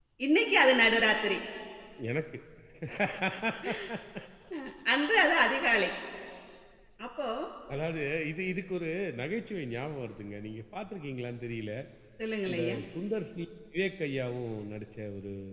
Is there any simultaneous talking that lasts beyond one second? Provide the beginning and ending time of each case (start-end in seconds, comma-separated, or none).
none